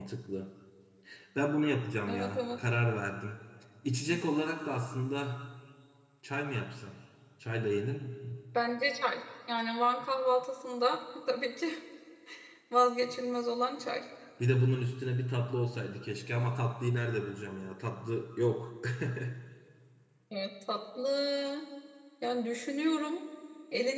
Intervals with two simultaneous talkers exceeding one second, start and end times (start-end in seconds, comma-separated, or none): none